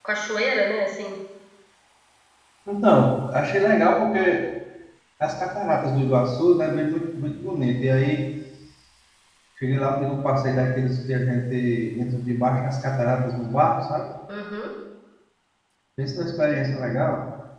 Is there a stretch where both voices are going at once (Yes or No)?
No